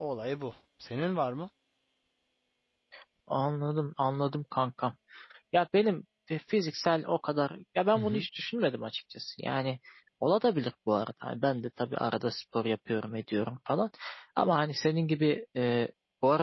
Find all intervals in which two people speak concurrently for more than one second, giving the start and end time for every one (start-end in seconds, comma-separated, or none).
none